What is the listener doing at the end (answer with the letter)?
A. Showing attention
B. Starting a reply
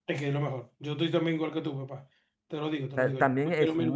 B